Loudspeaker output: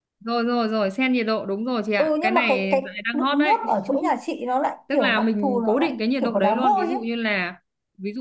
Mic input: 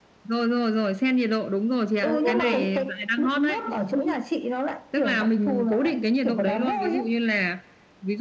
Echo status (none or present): present